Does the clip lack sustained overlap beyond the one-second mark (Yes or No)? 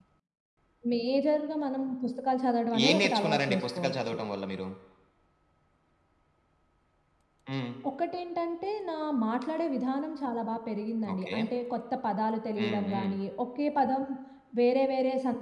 No